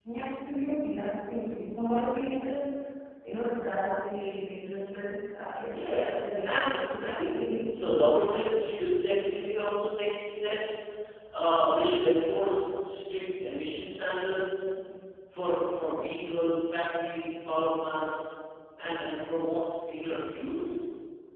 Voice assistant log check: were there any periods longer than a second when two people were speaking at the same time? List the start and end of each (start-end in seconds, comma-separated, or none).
5.7-8.0